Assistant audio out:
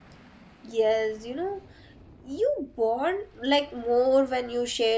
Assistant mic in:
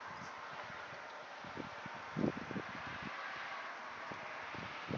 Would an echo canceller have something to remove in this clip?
No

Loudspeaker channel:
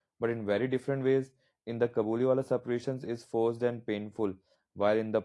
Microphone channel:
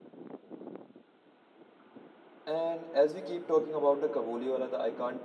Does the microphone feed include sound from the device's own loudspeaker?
No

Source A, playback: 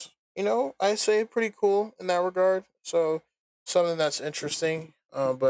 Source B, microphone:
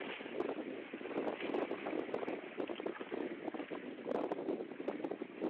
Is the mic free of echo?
Yes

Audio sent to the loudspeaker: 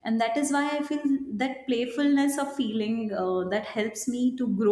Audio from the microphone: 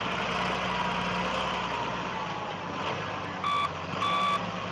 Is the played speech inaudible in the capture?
Yes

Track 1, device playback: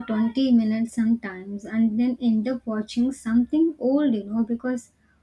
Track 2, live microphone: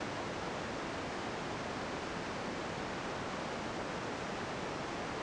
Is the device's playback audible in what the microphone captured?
No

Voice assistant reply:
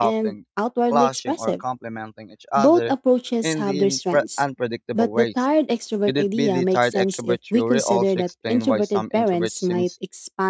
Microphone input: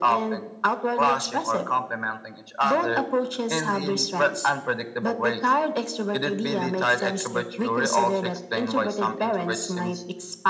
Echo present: Yes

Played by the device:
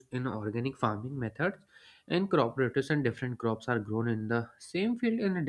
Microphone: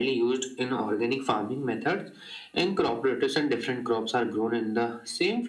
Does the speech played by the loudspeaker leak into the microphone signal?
Yes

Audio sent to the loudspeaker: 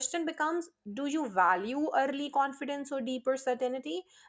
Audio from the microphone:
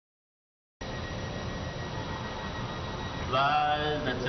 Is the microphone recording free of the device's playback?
Yes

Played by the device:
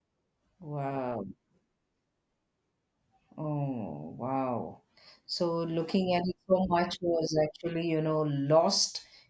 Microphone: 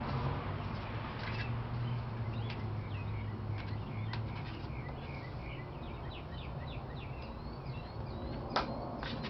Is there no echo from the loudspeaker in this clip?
Yes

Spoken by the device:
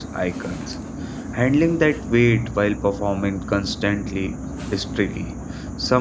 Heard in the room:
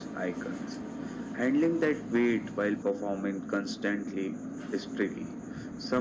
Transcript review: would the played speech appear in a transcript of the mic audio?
Yes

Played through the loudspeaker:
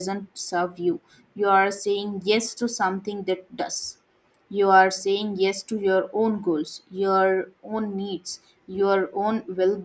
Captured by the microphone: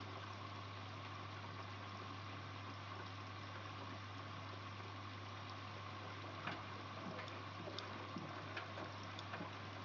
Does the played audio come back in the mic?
No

